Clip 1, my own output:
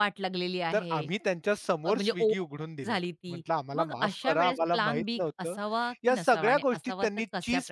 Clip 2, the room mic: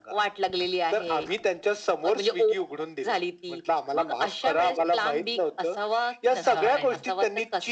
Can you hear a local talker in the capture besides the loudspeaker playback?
Yes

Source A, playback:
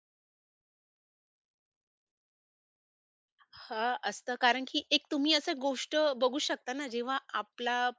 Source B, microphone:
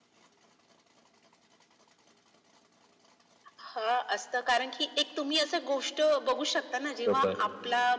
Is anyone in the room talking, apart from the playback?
Yes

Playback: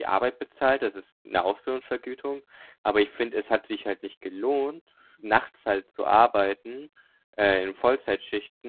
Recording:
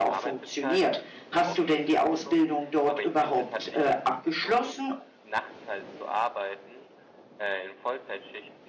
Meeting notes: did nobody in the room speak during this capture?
No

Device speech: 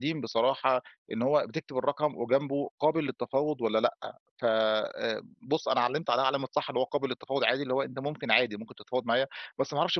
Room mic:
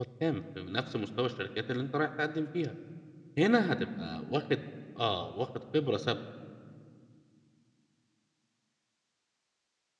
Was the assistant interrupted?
Yes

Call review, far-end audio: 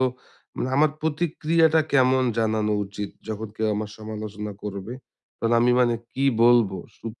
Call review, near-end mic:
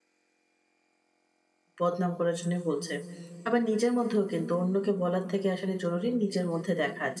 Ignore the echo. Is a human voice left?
Yes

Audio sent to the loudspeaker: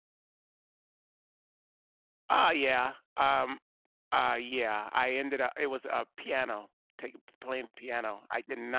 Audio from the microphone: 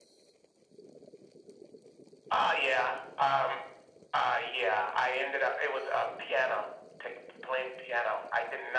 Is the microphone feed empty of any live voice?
Yes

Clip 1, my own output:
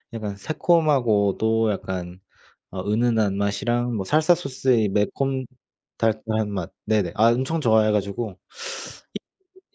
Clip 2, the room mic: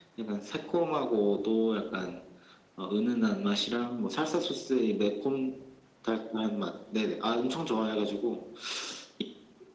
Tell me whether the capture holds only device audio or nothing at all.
Yes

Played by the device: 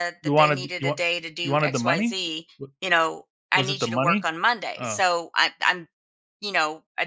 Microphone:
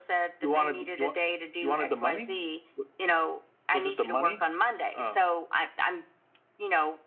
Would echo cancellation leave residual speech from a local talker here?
No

